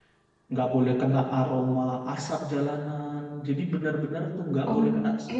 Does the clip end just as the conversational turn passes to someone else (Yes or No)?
No